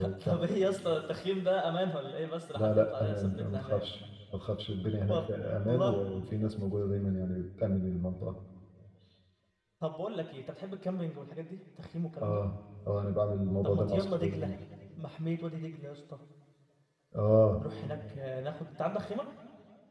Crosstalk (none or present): present